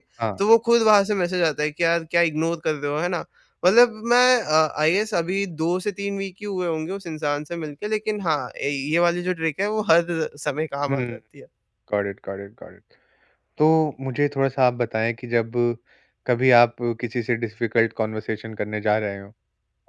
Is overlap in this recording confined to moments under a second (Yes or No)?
Yes